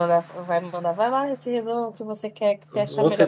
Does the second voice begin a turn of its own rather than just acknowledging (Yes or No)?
Yes